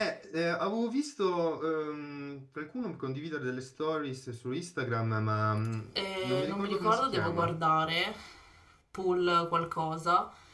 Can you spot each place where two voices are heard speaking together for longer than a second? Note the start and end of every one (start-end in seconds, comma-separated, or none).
6.2-7.5